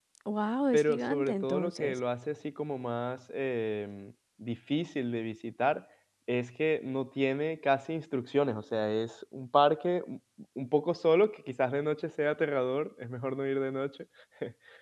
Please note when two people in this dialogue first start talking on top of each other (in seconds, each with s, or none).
0.7 s